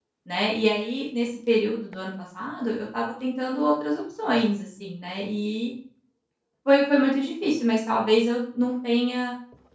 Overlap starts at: none

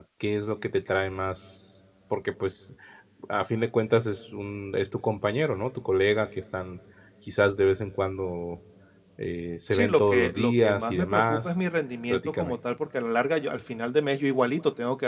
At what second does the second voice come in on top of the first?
9.7 s

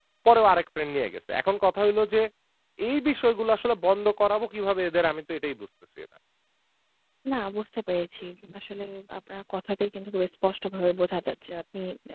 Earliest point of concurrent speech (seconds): none

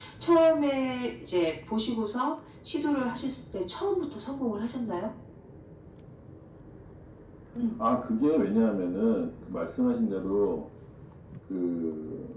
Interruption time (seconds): none

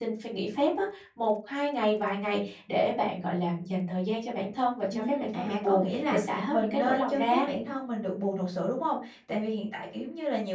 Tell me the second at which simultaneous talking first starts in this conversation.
4.9 s

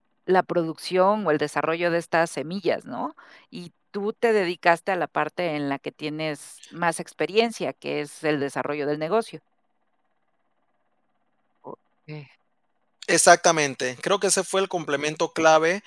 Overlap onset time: none

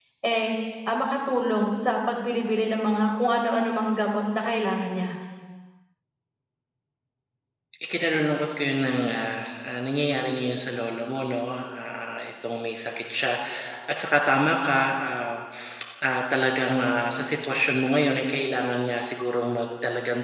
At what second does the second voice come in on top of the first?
none

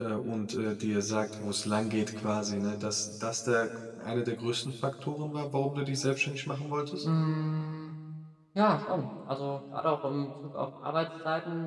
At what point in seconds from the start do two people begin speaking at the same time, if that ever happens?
none

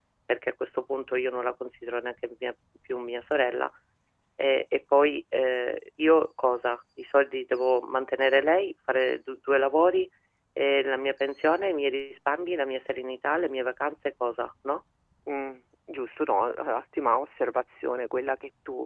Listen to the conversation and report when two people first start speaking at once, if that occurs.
none

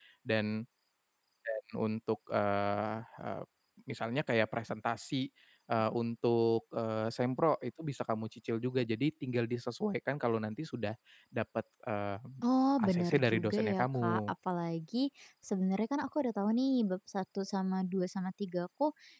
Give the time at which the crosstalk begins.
12.8 s

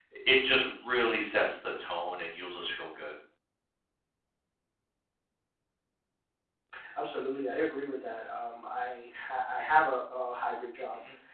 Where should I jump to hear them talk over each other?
none

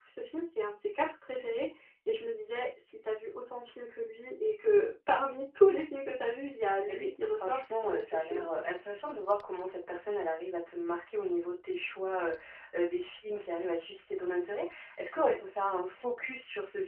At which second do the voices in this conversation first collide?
6.9 s

